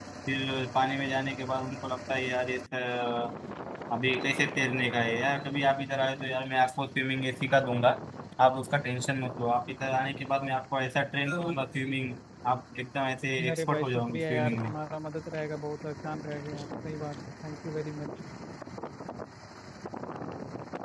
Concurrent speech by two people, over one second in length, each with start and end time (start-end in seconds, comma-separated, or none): 13.5-14.7